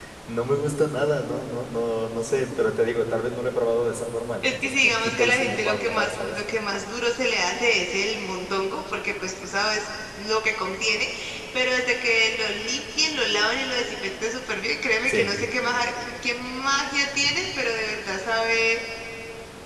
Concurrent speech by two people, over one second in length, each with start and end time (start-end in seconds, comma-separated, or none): 4.4-6.4